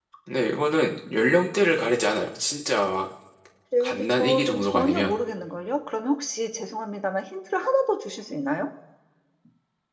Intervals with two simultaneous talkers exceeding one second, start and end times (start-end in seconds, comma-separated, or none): 3.8-5.1